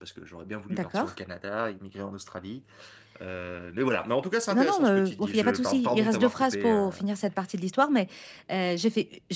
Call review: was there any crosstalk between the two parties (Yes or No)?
Yes